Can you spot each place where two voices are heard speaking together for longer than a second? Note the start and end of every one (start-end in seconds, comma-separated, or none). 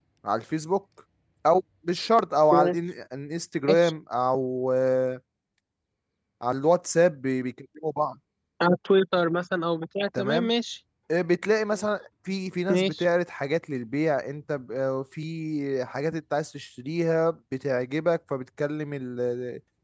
none